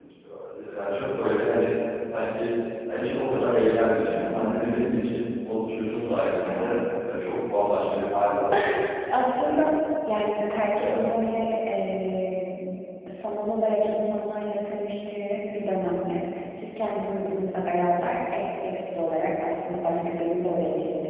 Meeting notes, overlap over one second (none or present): none